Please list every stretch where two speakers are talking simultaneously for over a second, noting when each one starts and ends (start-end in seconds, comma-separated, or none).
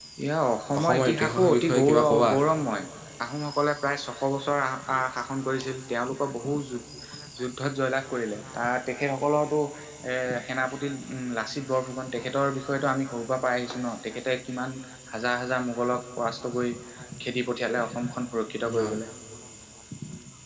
0.8-2.3